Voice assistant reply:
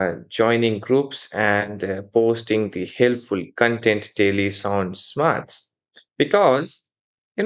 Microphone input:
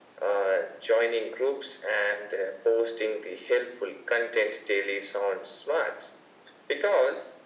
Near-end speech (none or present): none